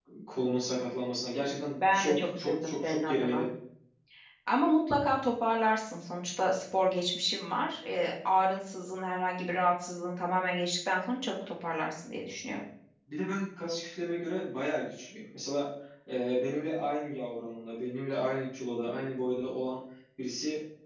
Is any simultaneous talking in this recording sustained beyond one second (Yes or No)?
Yes